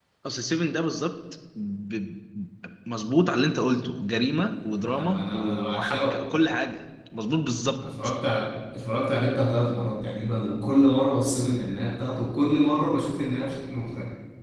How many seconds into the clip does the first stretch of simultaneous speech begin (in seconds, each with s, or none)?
4.9 s